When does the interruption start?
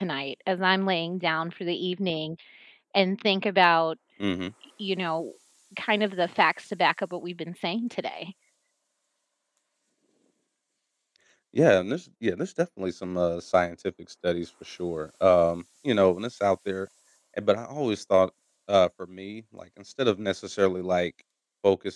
none

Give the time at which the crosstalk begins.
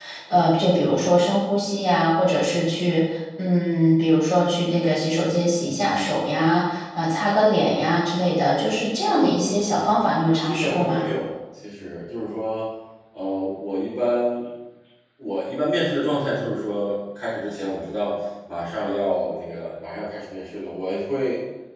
9.0 s

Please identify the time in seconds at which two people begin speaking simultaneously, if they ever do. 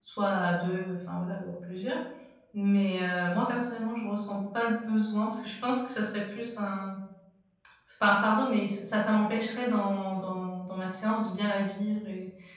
none

